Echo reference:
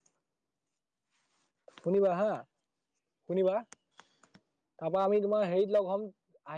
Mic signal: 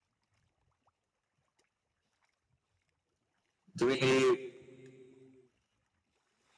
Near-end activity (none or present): present